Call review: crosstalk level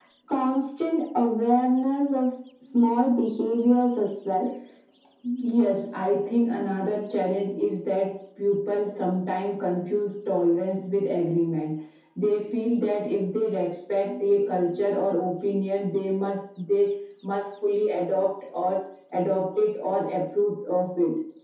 none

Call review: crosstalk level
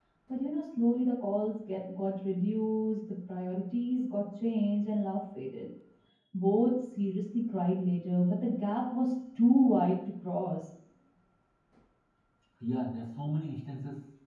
none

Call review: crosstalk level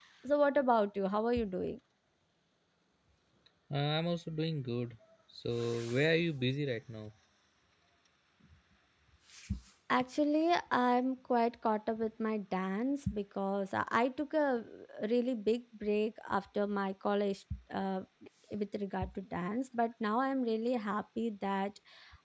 none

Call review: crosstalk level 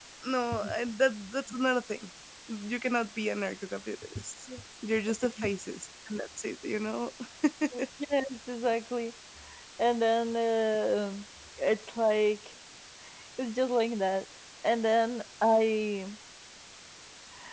none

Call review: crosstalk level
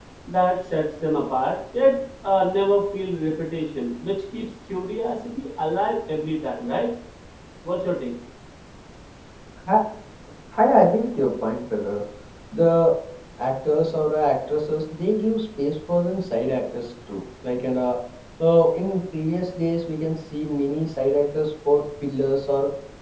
none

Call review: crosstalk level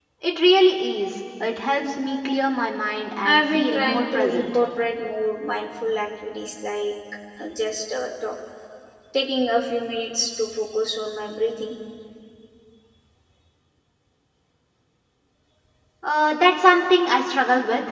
present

